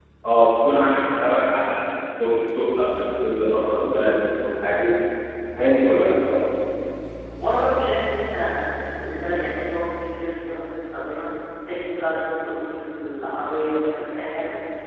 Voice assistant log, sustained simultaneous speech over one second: none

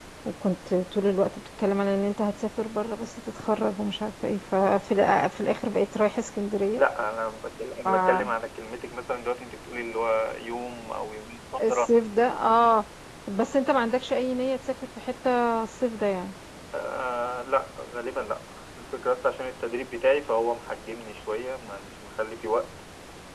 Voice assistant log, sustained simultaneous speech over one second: none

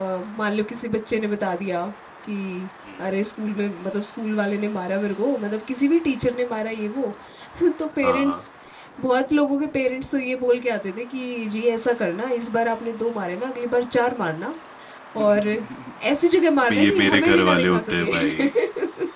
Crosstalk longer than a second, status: present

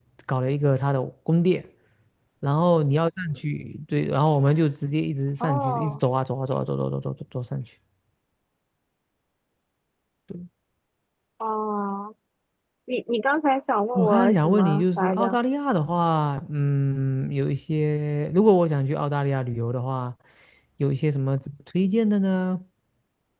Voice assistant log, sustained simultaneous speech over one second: present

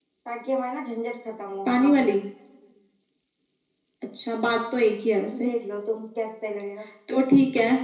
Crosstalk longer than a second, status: none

